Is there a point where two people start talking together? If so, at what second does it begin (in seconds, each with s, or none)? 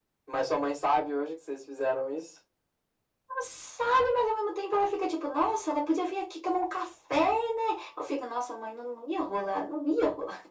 none